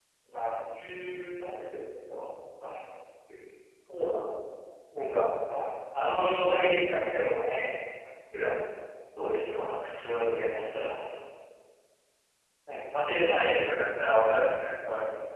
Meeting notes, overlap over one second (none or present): none